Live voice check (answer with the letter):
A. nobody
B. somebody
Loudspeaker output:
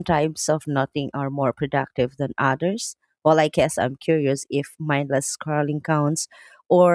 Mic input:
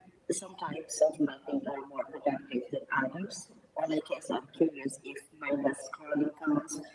A